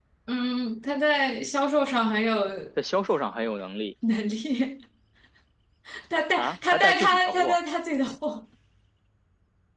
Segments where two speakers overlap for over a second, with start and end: 6.4-7.6

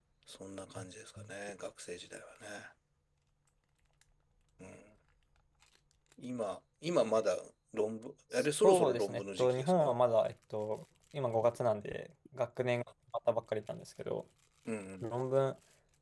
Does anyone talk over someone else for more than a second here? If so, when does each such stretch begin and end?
8.3-9.9

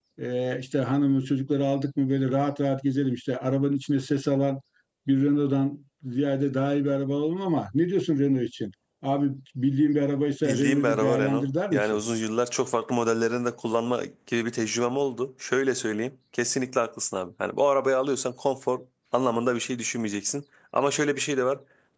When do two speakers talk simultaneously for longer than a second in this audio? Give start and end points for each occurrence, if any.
10.4-12.0

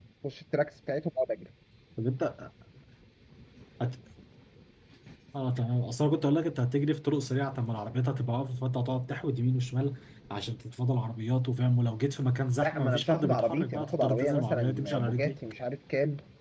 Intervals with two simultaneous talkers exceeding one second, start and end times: 12.6-15.4

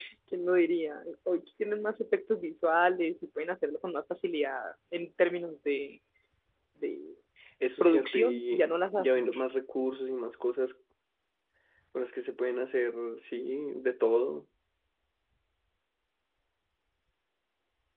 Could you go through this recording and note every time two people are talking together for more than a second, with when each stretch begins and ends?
7.8-9.3

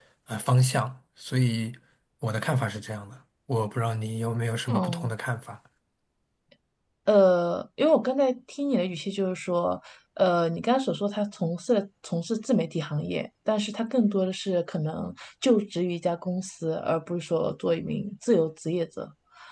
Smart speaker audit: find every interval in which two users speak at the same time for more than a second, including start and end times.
none

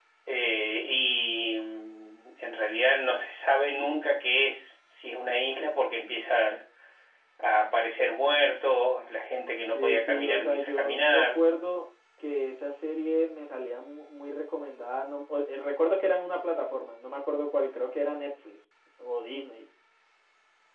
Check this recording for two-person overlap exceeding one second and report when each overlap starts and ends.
9.6-11.4

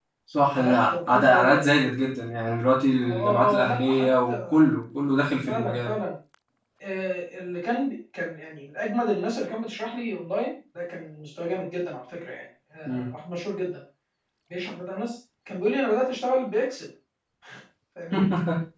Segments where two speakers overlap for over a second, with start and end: 0.6-1.8, 3.0-4.6

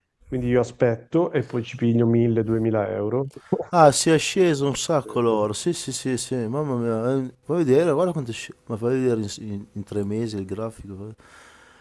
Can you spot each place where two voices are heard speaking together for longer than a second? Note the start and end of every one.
none

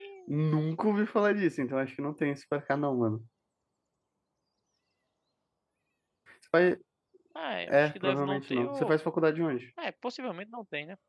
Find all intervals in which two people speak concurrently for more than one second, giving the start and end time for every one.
7.7-8.9

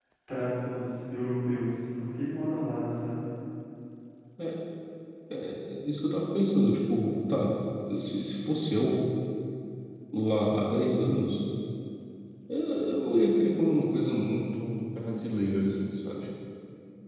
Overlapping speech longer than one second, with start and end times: none

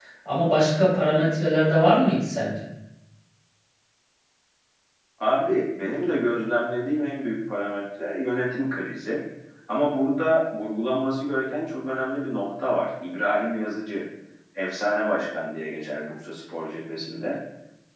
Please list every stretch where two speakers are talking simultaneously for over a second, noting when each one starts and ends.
none

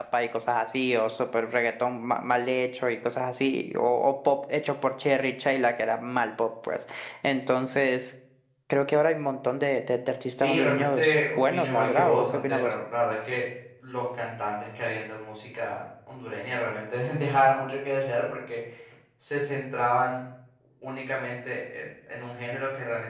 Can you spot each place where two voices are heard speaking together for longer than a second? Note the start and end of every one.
10.4-12.7

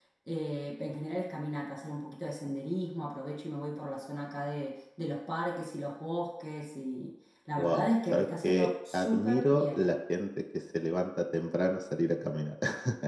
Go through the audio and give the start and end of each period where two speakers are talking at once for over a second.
7.6-9.9

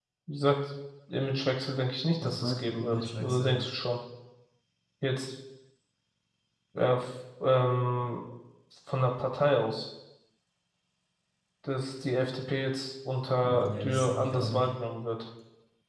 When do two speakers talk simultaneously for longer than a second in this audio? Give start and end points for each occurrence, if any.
2.2-3.5, 13.4-14.6

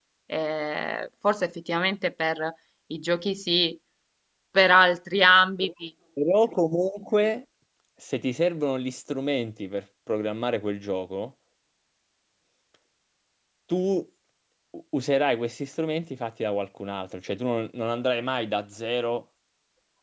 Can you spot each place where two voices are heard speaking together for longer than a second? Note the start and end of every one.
none

